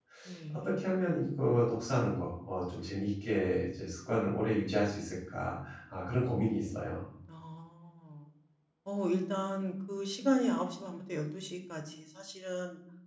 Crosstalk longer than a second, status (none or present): none